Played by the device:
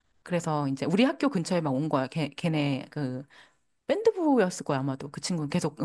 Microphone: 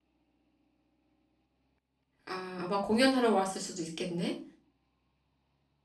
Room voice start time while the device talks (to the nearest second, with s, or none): 2 s